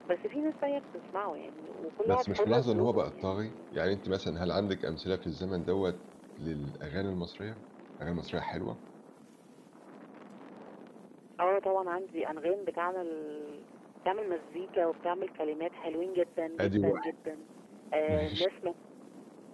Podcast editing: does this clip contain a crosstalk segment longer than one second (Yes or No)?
Yes